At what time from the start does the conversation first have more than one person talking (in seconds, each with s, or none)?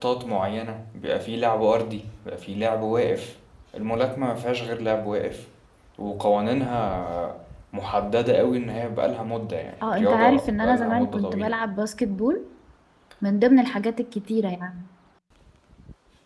9.8 s